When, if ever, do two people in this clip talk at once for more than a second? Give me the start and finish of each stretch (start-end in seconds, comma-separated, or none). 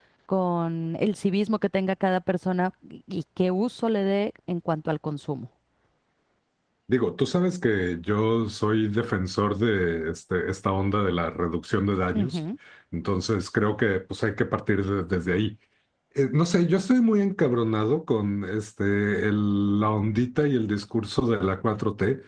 none